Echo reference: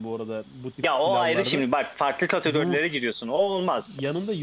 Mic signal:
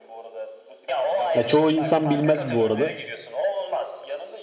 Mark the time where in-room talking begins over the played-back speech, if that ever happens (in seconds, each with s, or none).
1.3 s